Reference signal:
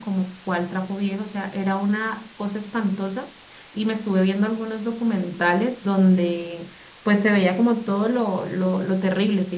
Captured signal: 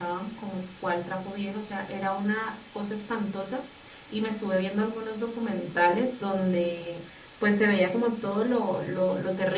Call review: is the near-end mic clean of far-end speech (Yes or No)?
No